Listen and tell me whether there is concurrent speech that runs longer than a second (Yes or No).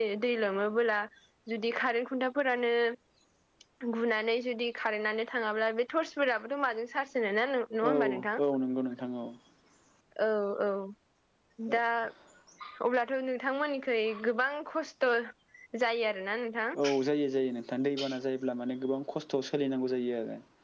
No